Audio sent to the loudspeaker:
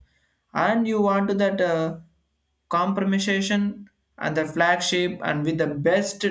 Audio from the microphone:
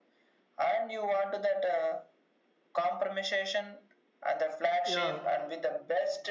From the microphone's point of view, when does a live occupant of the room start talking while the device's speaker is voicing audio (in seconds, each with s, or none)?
4.8 s